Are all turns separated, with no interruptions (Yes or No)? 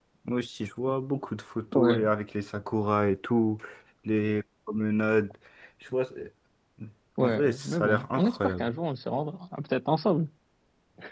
No